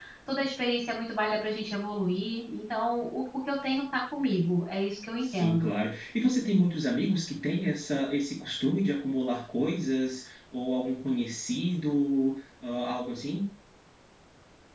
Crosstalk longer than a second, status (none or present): none